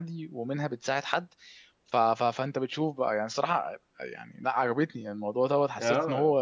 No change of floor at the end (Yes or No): Yes